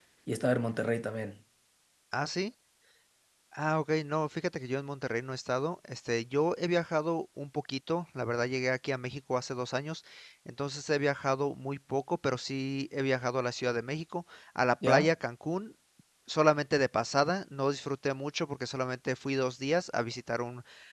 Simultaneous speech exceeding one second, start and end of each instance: none

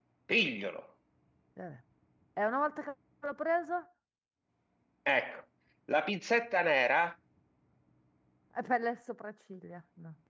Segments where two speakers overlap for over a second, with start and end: none

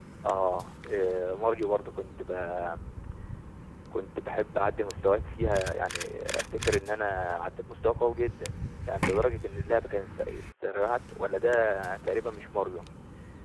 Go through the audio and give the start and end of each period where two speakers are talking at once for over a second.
none

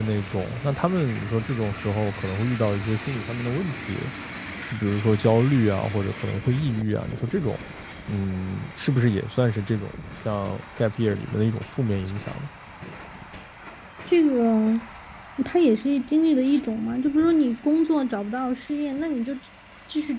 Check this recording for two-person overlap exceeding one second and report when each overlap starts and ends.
none

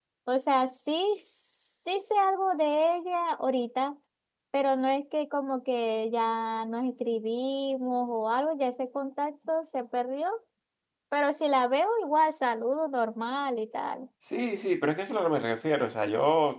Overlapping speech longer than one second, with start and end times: none

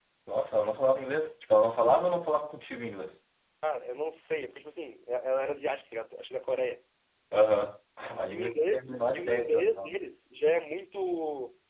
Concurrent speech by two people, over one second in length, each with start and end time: 8.3-9.9

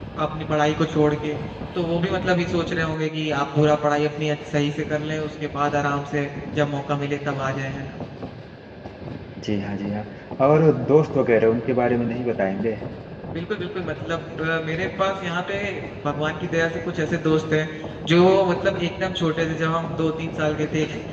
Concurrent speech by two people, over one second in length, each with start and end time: none

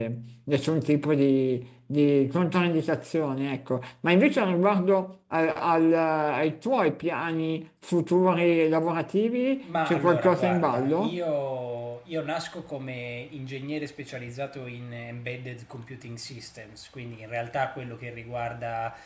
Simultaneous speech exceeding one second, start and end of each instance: 9.6-11.2

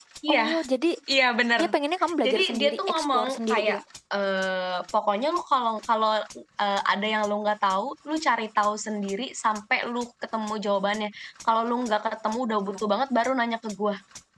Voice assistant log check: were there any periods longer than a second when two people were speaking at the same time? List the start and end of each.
2.2-3.8

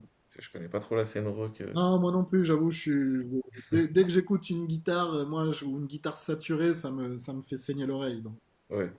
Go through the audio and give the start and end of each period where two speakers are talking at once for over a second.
none

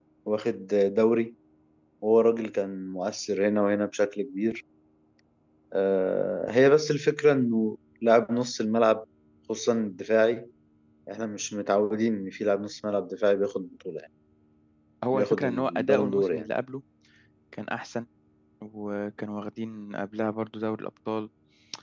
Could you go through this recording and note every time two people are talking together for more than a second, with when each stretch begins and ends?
15.1-16.5

